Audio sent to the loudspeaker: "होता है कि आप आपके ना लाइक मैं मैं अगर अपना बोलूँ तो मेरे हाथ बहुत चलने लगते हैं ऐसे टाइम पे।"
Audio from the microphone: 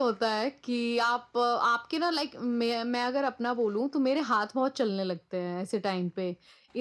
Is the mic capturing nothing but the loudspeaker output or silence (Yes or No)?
Yes